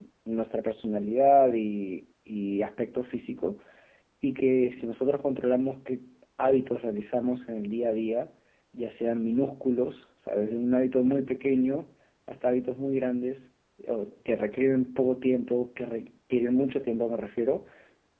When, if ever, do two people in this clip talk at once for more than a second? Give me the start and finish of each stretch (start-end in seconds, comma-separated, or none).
none